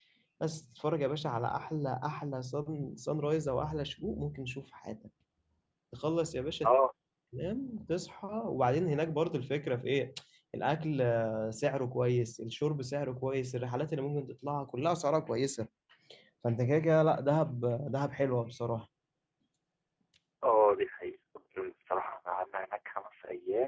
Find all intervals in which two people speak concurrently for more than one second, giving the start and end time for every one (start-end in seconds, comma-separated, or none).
none